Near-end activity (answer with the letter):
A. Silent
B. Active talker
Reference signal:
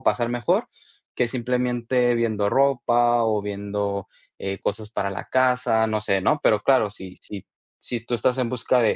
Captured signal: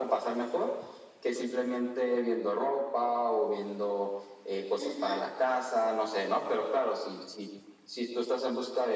B